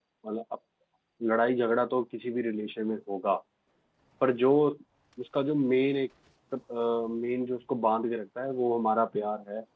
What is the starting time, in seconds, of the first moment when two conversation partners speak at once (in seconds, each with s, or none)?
none